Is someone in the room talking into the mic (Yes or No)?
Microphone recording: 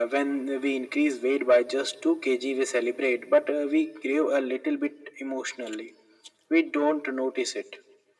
No